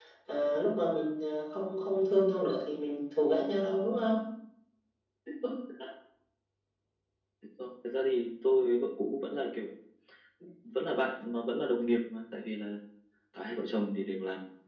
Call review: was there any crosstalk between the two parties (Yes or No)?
No